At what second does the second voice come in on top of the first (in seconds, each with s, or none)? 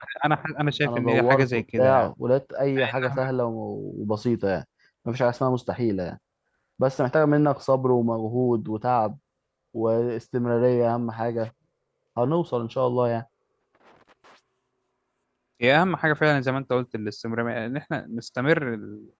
0.8 s